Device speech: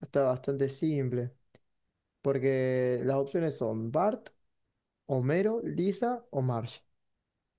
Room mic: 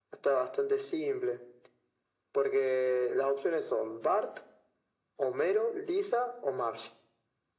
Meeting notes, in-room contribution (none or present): none